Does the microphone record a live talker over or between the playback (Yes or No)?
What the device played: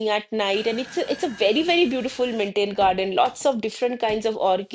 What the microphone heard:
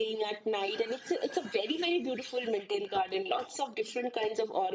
No